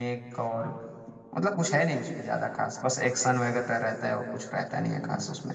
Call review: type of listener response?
taking over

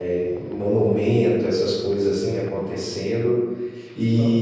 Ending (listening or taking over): listening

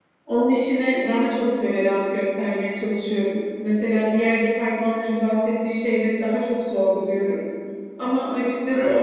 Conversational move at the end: listening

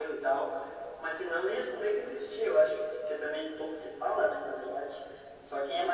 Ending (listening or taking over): listening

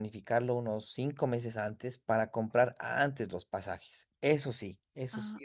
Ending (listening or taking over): taking over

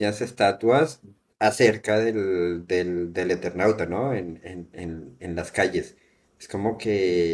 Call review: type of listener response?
listening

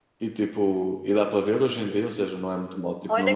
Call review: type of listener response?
taking over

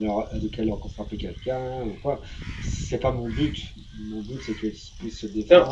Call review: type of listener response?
taking over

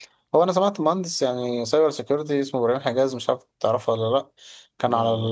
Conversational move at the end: listening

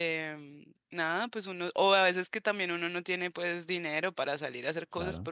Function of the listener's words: listening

